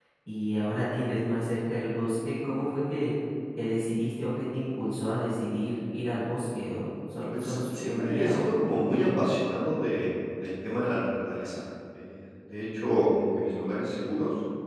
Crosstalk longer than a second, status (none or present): present